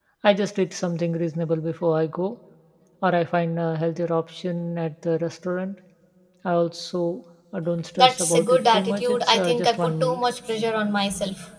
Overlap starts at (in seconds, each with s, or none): 8.0 s